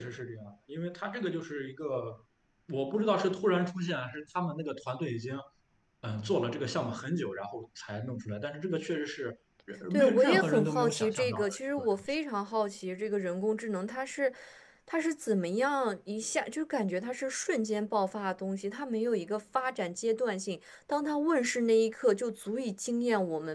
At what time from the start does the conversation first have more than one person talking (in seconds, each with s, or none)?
9.9 s